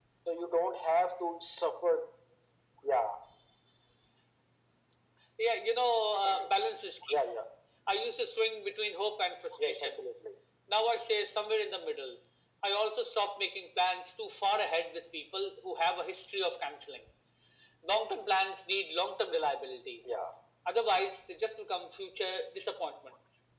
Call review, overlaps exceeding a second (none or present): none